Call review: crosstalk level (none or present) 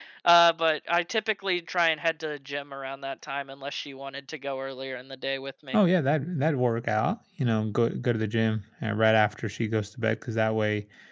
none